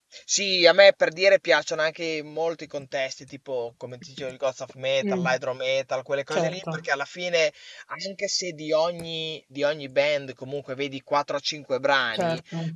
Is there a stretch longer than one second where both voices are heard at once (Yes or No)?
No